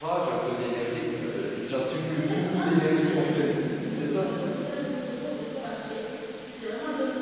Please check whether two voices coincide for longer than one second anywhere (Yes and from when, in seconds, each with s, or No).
Yes, from 2.2 s